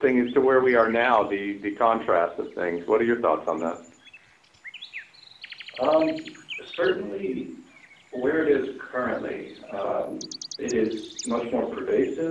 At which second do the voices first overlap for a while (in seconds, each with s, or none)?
none